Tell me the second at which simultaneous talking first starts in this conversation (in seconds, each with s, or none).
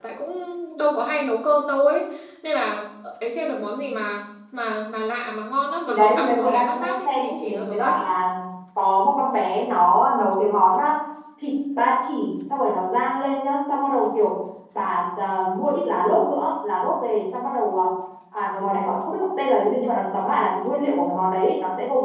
5.9 s